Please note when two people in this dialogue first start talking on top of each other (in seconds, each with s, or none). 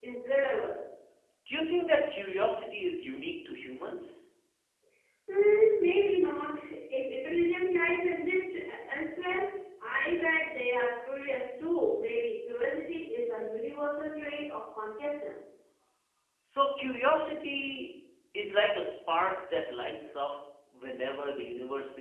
none